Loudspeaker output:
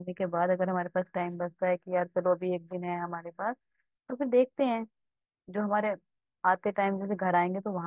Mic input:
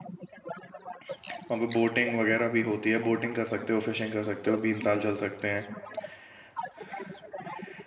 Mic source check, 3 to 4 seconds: both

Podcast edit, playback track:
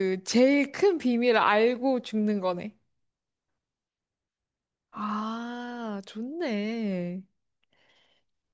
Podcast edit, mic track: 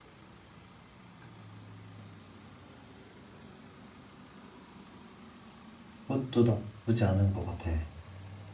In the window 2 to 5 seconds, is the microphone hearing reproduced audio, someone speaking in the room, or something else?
neither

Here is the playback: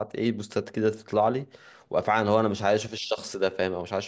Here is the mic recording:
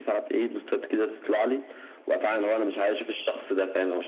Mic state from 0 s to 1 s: echo only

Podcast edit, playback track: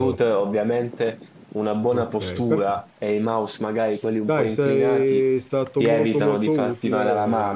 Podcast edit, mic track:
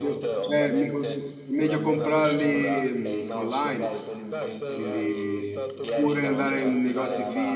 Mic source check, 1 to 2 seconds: both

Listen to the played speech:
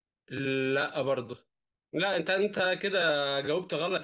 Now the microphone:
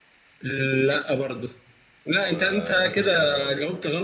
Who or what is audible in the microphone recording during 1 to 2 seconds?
echo only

